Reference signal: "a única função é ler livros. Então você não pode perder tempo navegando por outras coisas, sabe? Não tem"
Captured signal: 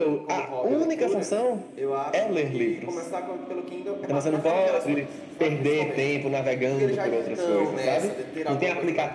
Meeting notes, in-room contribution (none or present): present